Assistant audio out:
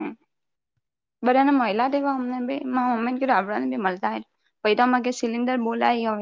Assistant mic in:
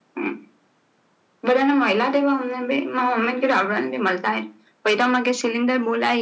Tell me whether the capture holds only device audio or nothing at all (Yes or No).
Yes